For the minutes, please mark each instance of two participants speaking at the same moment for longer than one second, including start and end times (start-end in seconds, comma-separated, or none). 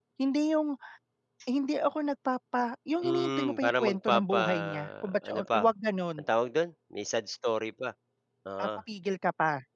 3.0-5.7